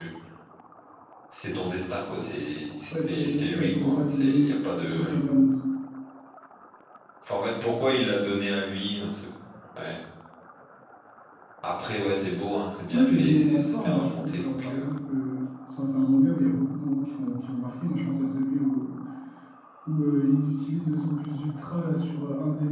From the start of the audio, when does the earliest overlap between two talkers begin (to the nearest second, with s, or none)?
3 s